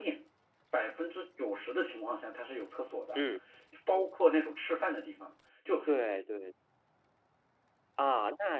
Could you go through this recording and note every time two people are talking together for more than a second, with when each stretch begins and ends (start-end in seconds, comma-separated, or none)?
none